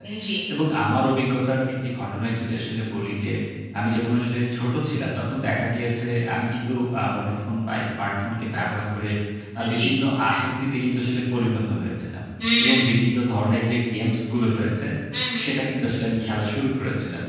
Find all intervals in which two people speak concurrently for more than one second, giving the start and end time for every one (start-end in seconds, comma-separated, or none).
none